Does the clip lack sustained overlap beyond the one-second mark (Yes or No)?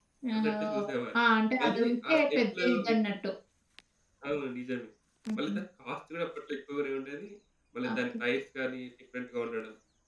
No